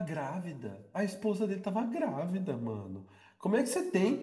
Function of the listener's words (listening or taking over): listening